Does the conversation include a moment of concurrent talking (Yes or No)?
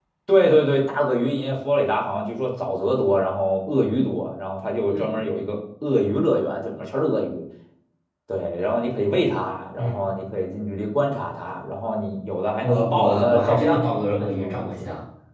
Yes